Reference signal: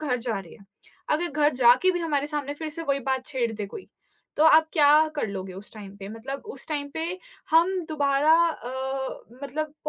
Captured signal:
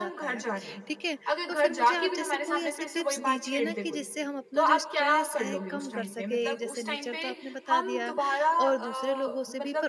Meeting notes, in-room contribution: present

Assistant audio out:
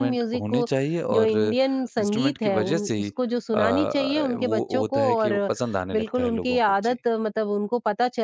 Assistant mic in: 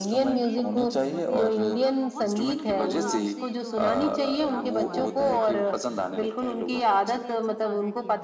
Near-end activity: present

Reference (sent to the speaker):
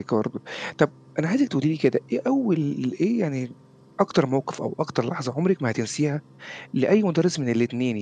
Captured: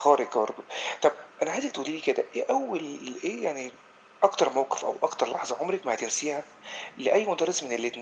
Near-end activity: none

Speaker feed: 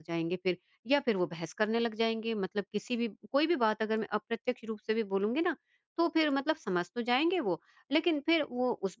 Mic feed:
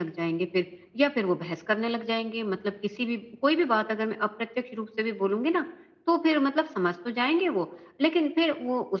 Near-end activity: none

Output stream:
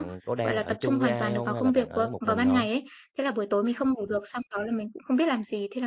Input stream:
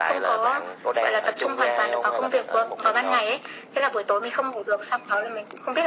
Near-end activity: none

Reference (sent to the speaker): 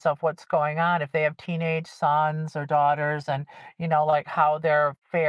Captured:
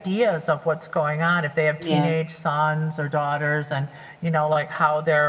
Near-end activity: present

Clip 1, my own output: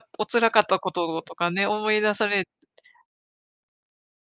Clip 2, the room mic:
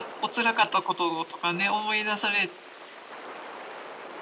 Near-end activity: none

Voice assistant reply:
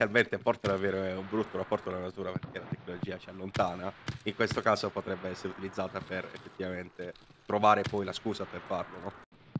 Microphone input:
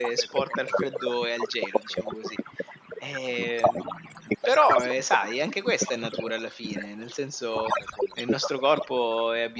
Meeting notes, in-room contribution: present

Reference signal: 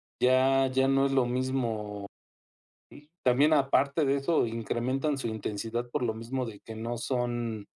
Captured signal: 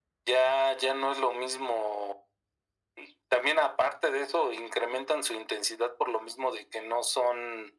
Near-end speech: none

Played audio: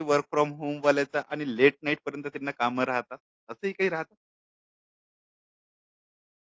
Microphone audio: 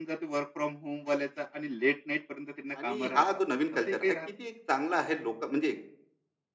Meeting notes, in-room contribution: present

